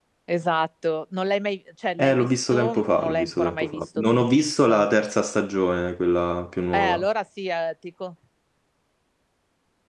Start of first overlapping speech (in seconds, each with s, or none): 2.0 s